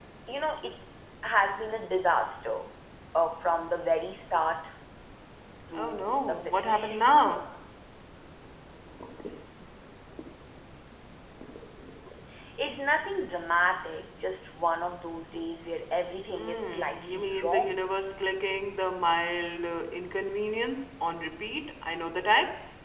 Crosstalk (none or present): present